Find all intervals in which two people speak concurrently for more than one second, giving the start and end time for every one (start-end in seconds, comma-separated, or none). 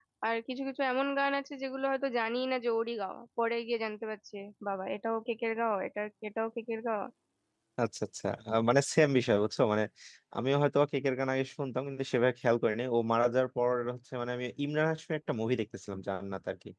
none